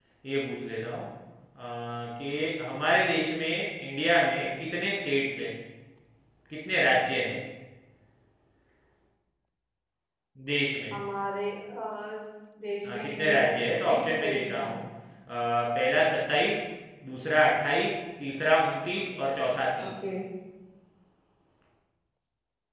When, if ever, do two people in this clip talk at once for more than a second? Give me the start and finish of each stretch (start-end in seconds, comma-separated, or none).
12.8-14.7